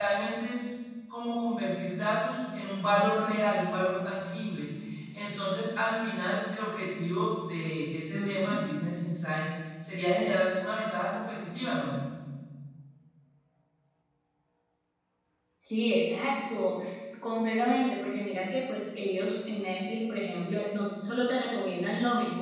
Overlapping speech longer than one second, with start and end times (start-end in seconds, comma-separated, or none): none